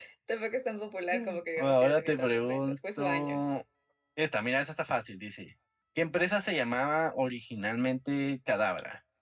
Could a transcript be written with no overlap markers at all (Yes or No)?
No